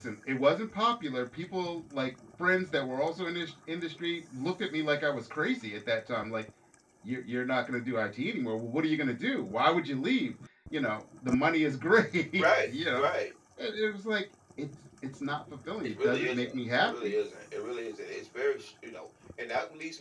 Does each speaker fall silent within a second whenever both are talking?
No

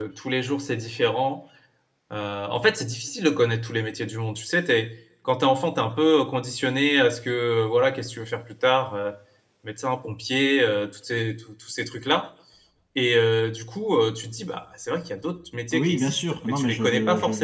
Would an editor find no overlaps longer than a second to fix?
No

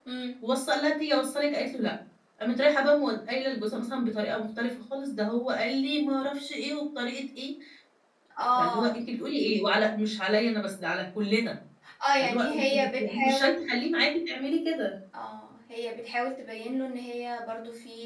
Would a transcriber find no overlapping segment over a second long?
No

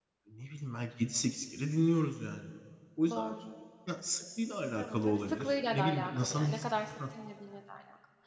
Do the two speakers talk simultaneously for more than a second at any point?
Yes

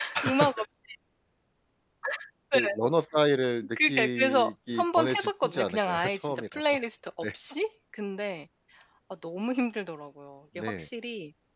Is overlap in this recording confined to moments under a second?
No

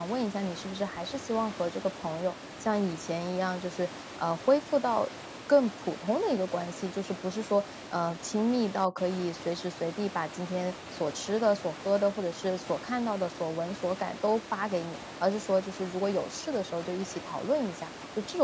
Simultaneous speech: No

